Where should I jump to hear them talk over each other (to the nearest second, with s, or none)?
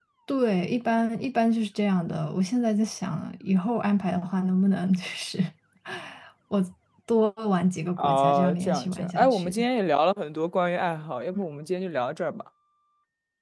8 s